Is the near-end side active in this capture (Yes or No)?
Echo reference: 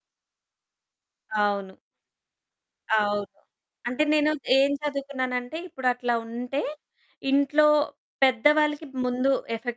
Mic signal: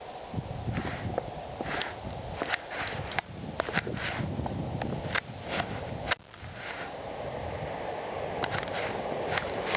No